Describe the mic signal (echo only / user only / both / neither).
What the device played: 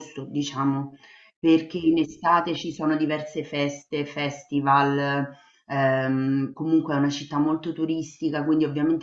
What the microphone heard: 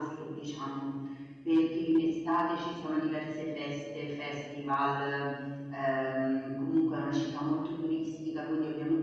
echo only